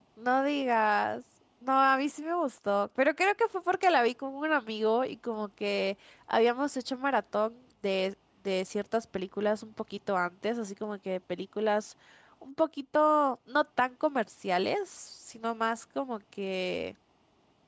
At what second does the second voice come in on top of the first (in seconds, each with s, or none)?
none